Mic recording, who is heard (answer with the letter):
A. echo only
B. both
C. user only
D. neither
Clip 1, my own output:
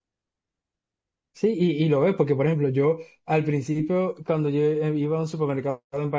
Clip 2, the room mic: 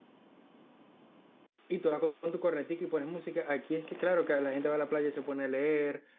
C